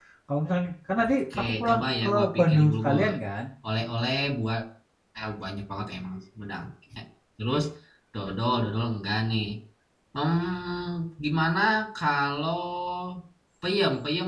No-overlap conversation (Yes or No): No